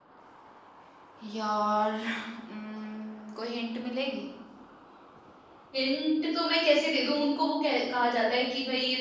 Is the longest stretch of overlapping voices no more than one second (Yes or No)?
Yes